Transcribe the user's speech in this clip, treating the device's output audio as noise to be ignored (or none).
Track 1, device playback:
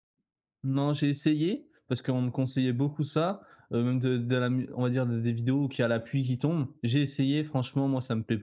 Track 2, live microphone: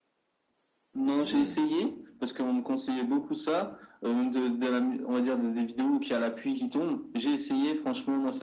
Mmh.